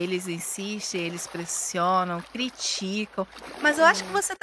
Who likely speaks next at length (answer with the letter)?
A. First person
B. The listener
A